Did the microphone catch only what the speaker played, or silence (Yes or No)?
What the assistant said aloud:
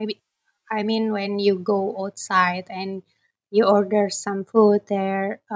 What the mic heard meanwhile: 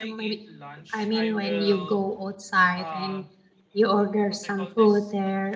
No